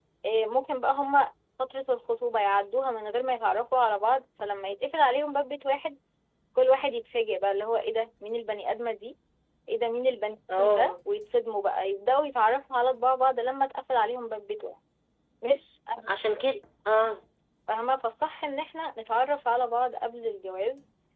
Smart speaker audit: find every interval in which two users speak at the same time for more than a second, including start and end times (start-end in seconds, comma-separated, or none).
none